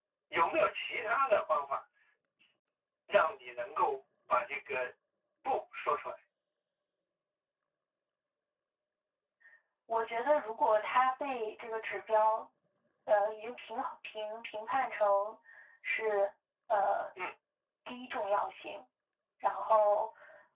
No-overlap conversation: Yes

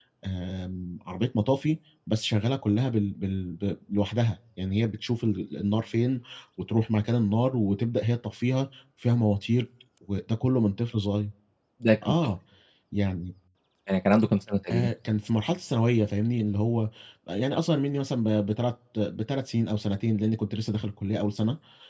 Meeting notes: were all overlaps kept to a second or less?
Yes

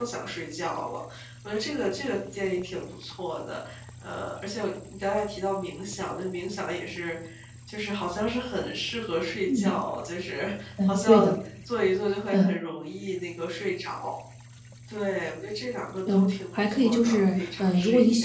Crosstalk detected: Yes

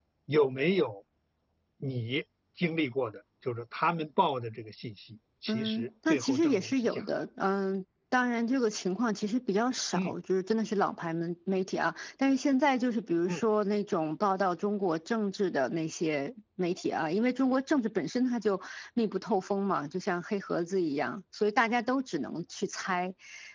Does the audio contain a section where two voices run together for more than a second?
Yes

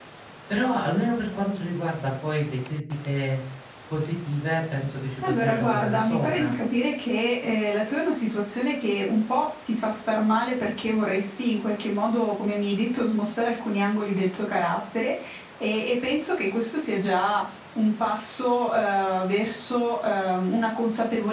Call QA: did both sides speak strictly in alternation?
No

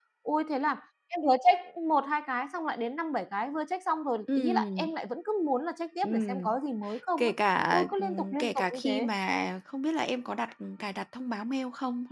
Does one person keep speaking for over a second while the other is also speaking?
Yes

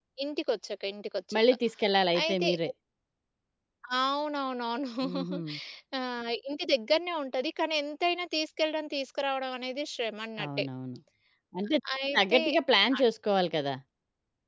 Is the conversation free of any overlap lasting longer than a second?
Yes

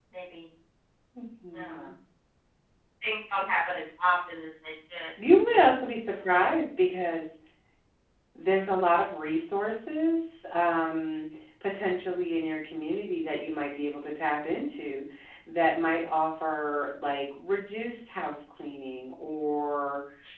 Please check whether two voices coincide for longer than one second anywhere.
No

